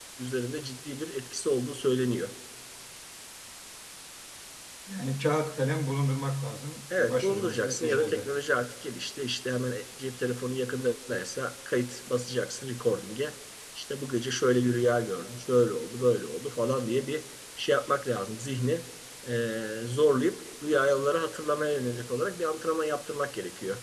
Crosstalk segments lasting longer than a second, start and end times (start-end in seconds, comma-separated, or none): 7.0-8.3